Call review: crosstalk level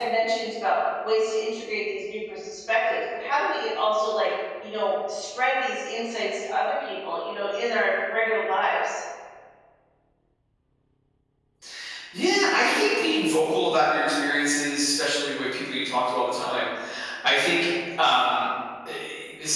none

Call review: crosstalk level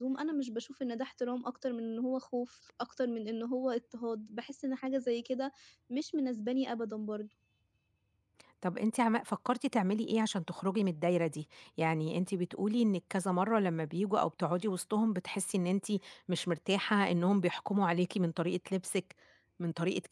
none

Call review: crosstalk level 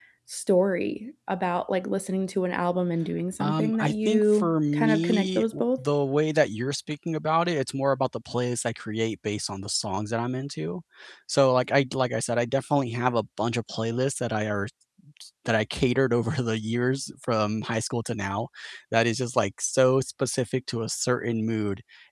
present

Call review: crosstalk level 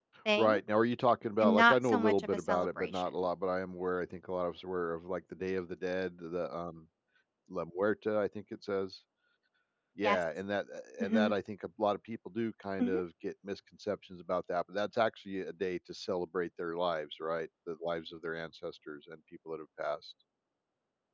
present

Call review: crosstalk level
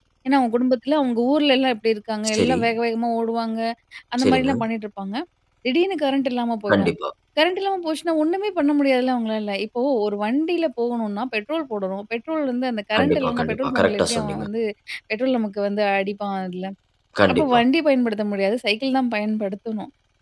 present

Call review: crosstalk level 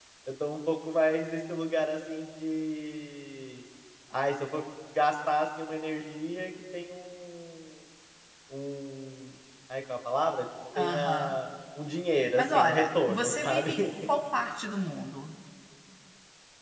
present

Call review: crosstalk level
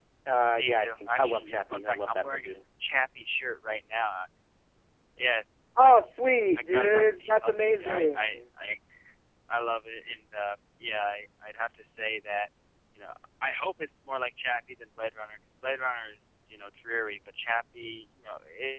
present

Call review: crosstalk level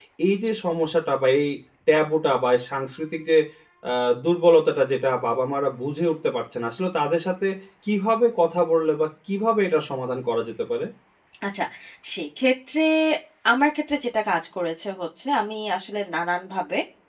none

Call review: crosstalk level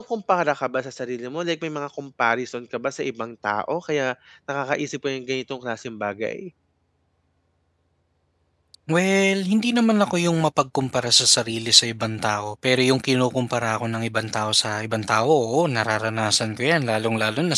none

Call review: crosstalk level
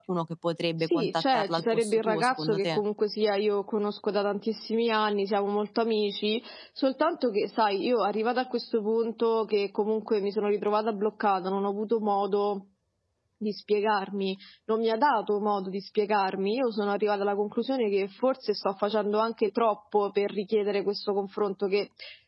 present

